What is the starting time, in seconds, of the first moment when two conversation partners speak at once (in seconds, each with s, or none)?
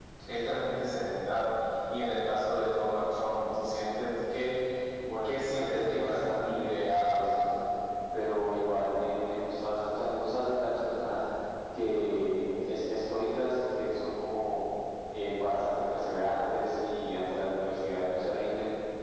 5.2 s